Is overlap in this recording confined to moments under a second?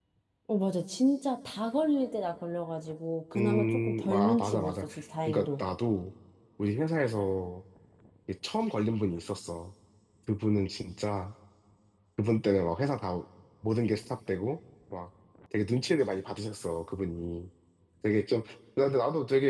No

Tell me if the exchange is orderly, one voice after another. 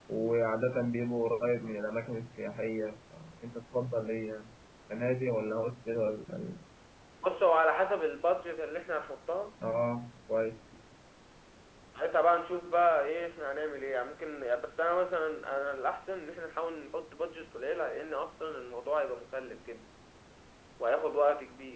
Yes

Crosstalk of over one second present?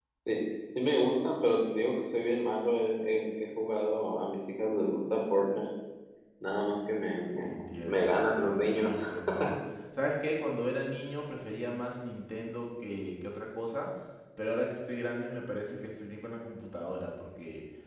Yes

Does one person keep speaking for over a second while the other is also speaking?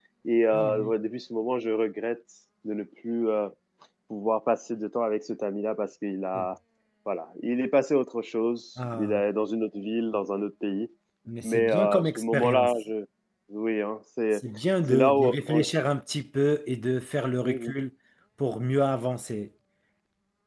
Yes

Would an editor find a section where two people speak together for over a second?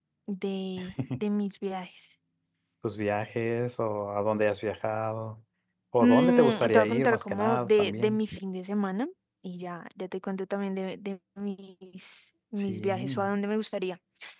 Yes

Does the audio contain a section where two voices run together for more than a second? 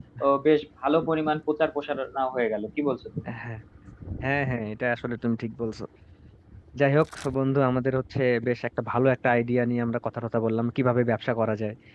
No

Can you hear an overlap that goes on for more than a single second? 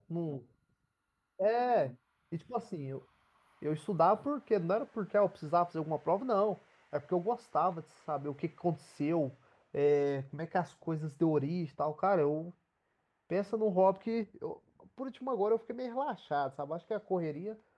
No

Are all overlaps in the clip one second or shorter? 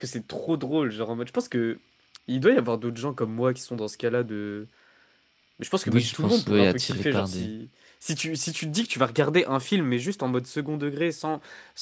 No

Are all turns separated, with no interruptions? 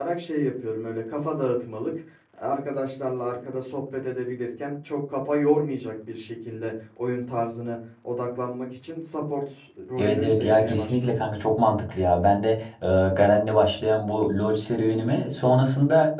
No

